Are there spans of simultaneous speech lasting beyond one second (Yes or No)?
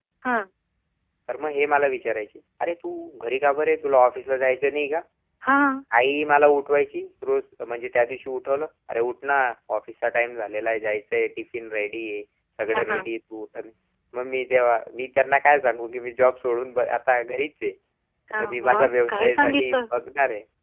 Yes